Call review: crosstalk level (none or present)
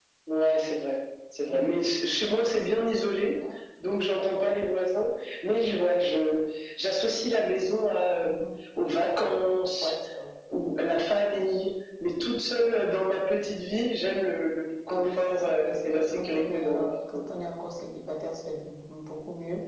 present